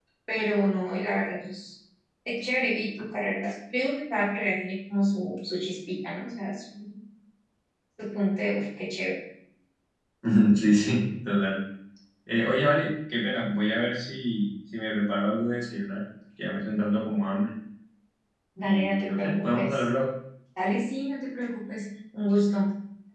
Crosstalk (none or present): present